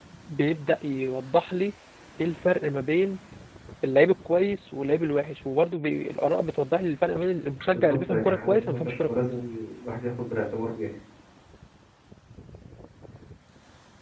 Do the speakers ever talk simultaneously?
Yes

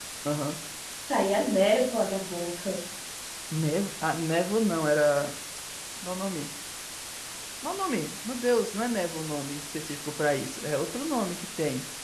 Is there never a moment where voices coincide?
Yes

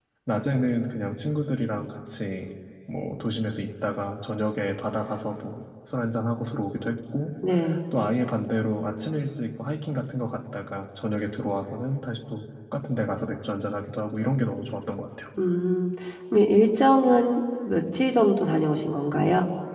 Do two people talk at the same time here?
No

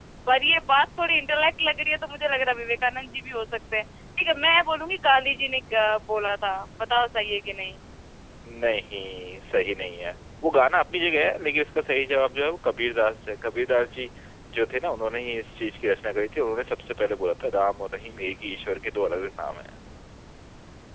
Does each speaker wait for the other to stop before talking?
Yes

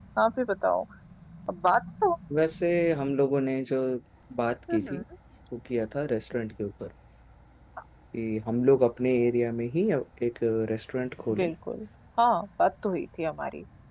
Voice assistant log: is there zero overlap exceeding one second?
Yes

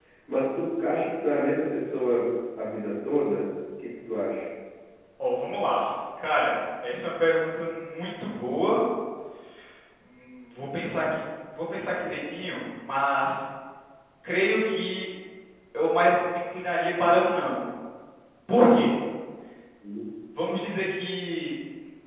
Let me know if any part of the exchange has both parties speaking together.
No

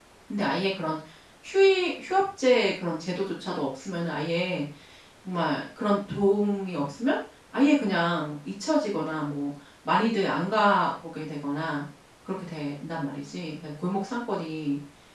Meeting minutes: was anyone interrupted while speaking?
No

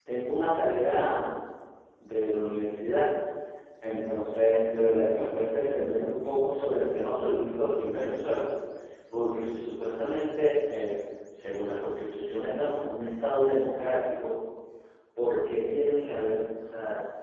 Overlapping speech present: No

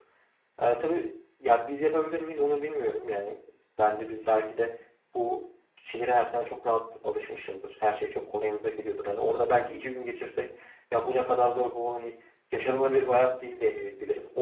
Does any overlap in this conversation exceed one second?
No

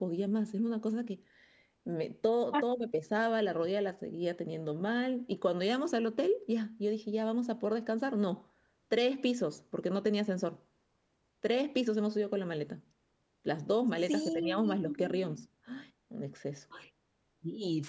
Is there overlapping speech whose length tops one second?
Yes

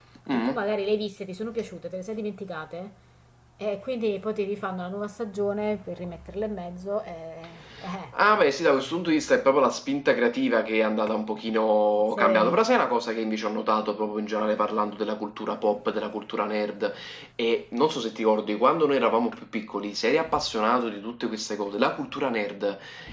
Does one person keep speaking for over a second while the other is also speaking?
No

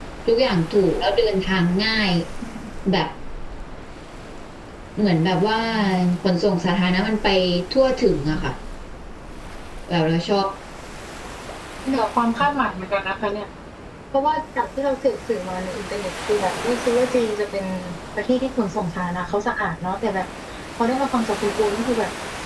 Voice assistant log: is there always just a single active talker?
Yes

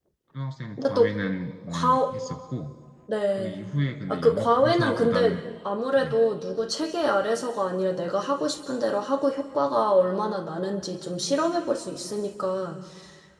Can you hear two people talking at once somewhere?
Yes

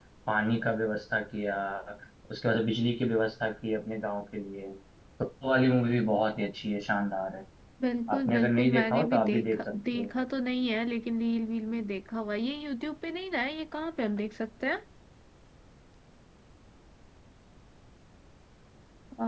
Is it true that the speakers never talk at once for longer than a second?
No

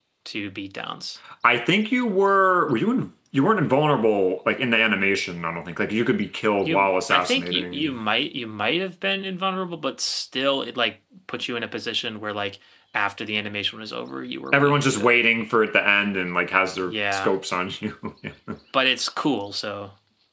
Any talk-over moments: Yes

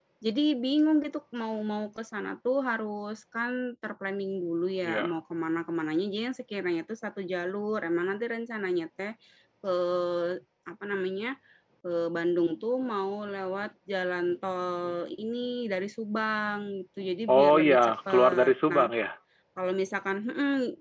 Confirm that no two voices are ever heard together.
No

